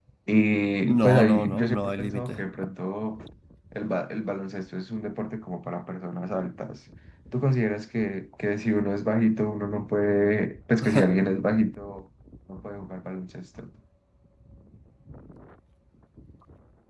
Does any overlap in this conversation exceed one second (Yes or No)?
Yes